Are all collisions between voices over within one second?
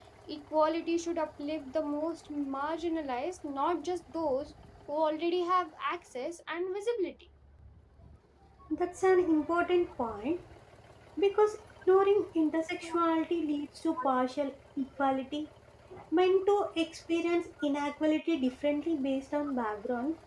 Yes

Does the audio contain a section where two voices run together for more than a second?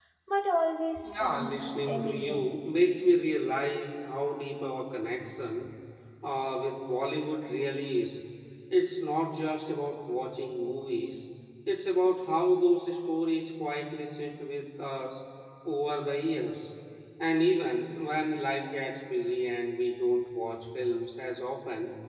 Yes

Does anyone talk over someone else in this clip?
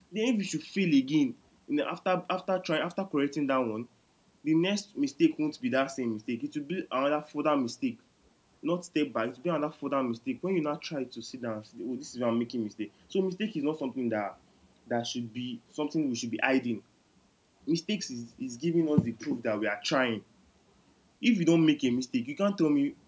No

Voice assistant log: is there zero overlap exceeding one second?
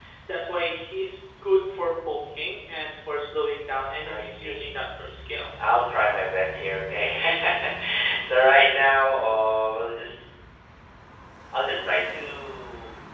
Yes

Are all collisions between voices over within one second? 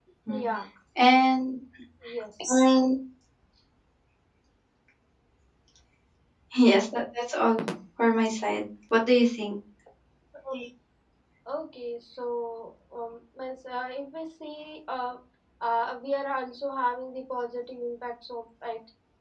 Yes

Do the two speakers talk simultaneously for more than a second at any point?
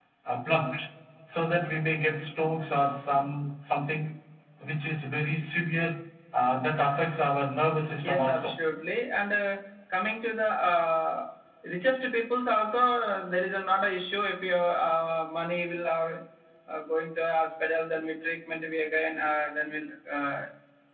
No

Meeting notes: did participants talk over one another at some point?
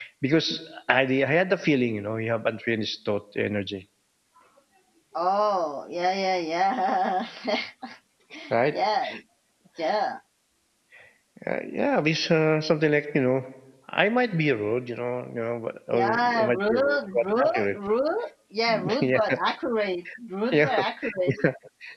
Yes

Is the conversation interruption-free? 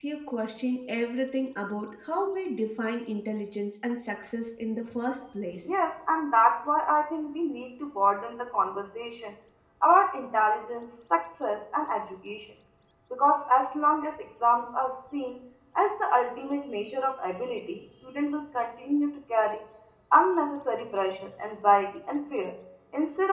Yes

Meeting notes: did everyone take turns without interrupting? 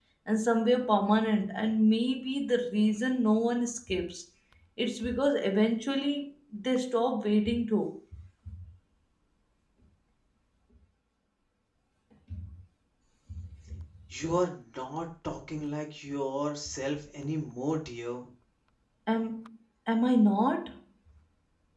Yes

